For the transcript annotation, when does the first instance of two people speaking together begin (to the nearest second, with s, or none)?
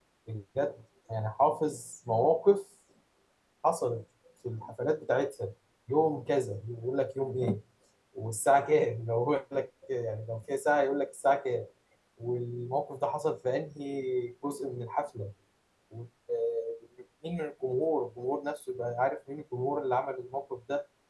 none